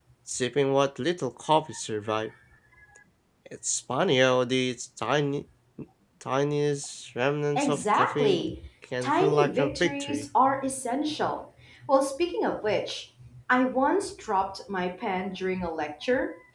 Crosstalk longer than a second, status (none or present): present